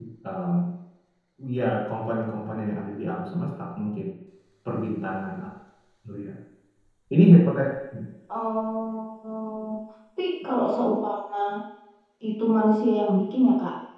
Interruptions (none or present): none